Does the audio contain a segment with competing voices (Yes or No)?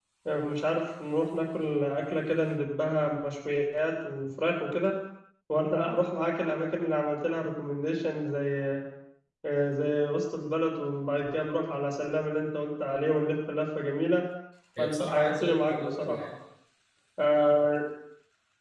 Yes